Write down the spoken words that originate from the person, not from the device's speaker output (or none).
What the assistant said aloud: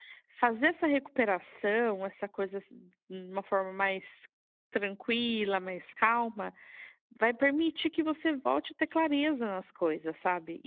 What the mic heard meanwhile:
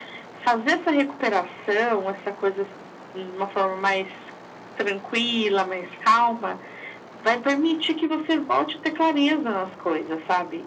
none